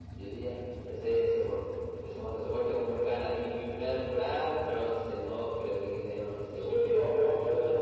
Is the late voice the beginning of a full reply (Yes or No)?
Yes